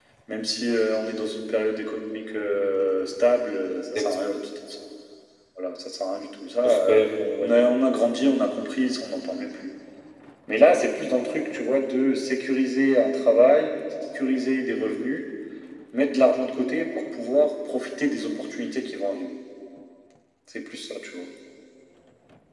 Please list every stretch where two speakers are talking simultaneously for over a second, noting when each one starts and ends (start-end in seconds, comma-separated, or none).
none